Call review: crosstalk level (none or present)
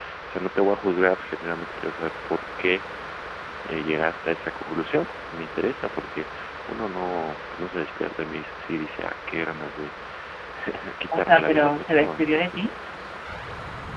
present